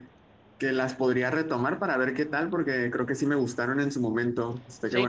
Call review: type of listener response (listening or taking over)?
taking over